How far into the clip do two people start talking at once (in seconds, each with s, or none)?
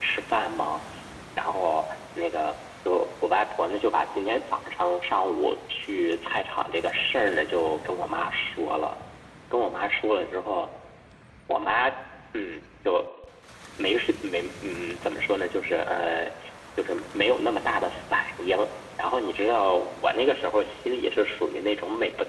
none